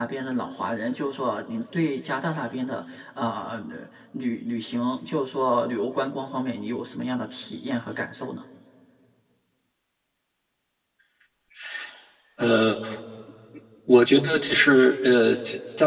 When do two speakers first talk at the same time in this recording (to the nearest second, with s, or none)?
none